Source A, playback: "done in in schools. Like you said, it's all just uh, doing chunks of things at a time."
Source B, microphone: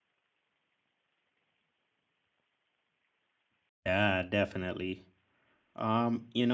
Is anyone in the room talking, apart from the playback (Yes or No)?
Yes